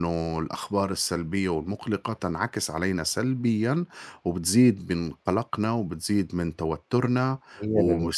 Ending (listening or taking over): listening